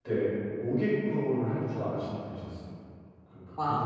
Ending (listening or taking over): listening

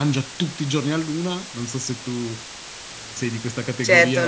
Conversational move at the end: taking over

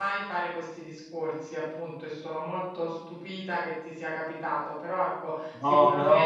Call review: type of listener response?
listening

